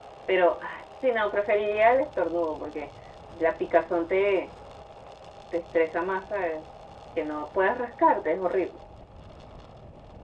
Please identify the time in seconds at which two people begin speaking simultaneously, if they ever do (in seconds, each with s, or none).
none